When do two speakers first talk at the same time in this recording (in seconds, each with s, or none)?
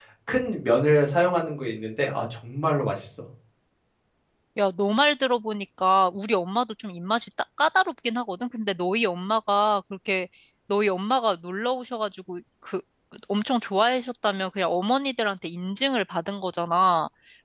none